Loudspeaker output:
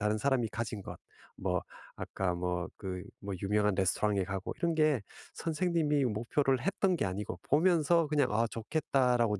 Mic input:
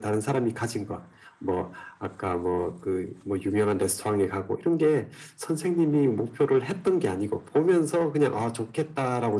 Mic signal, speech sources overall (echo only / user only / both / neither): echo only